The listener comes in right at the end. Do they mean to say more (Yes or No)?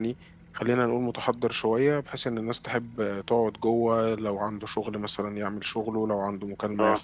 No